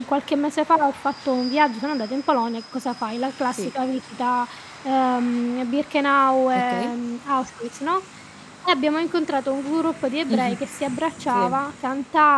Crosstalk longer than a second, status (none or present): none